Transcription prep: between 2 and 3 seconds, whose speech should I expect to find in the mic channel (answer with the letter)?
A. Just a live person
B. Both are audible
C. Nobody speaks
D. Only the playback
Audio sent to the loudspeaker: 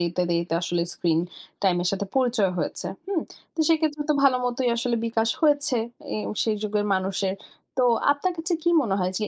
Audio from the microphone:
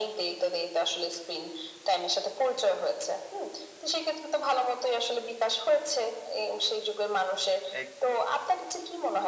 D